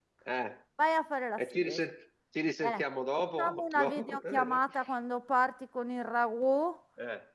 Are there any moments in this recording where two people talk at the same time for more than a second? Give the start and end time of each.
3.4-4.6

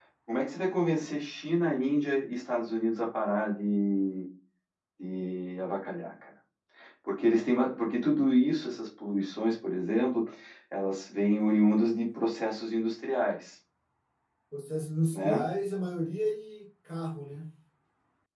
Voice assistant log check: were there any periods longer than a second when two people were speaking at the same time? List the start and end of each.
none

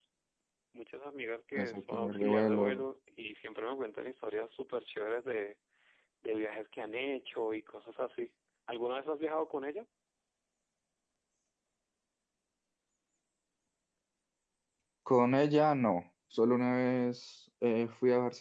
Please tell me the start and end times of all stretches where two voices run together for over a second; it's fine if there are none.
1.6-2.8

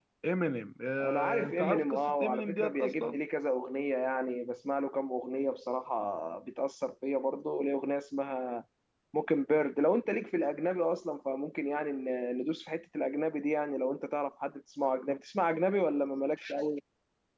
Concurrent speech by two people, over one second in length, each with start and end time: 1.0-3.2

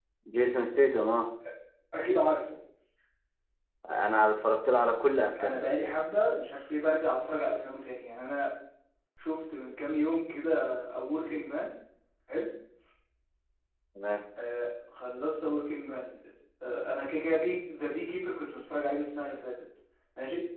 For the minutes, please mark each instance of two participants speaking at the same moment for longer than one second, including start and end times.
none

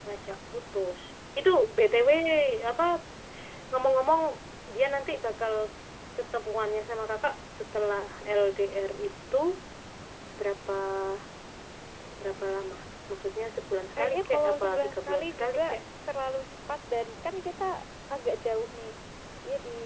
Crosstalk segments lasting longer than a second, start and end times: 14.0-15.6

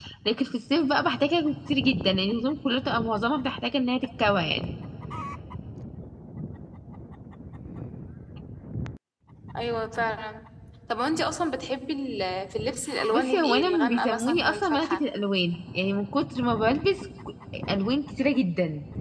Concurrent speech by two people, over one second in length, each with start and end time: 13.1-15.0

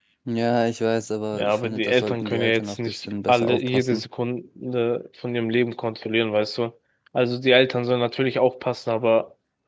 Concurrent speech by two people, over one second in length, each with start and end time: 1.3-4.0

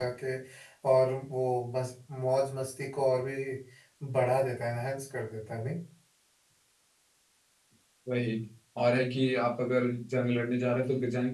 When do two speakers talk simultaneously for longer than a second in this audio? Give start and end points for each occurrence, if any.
none

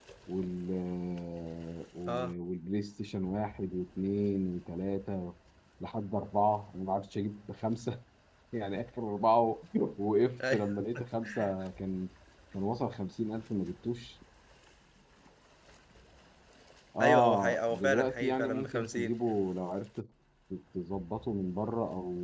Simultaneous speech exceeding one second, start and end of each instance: 17.0-19.1

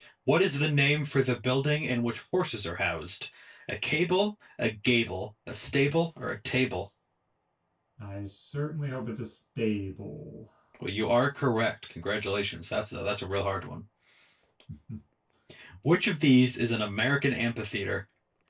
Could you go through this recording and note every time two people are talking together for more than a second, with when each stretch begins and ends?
none

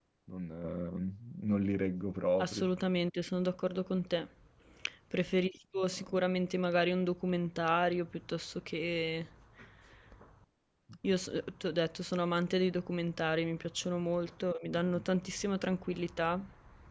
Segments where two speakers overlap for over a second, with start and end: none

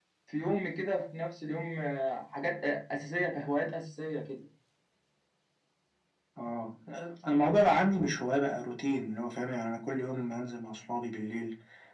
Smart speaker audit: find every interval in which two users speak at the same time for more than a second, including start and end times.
none

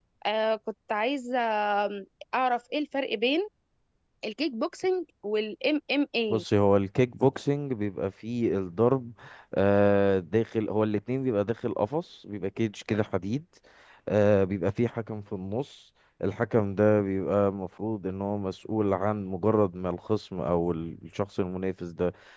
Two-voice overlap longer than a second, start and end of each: none

